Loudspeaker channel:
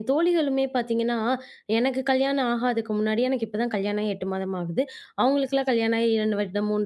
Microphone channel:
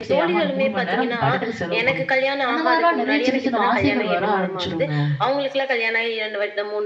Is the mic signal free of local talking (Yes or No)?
No